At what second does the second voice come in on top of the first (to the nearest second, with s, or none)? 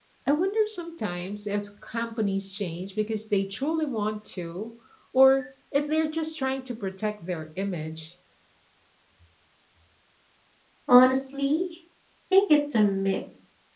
none